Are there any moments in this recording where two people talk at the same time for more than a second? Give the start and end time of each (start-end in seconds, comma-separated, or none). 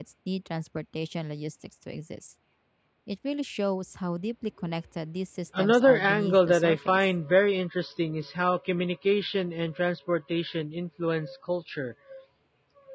5.6-7.0